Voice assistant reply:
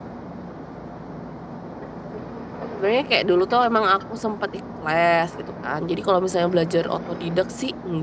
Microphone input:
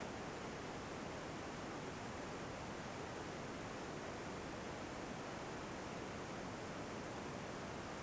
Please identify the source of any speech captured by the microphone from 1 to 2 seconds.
neither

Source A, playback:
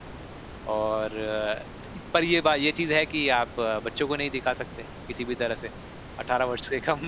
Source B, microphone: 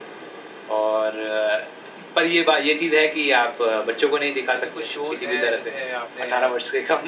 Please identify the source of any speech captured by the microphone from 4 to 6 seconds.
both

